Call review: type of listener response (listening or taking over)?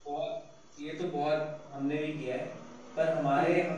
listening